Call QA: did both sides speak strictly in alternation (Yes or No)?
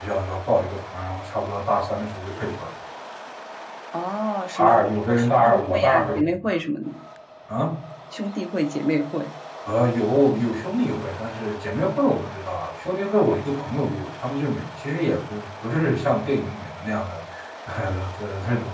No